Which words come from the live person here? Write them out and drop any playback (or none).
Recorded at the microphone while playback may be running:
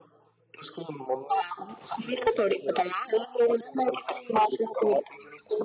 none